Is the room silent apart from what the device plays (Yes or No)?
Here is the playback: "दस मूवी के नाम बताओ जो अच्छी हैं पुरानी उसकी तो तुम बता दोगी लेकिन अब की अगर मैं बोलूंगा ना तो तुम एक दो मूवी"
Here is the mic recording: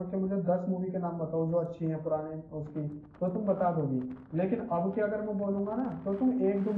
Yes